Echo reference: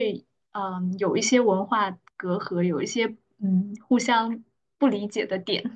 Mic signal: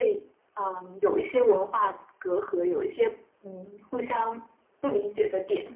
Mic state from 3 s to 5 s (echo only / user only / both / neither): echo only